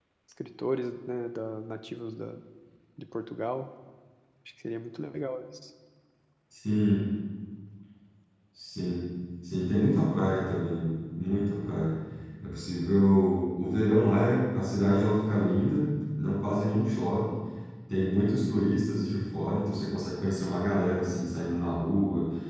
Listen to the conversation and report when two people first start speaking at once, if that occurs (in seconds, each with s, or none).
none